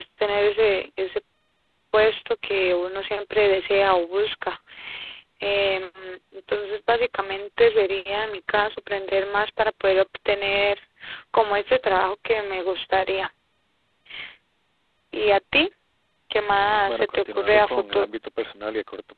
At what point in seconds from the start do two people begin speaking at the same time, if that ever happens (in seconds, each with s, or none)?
16.9 s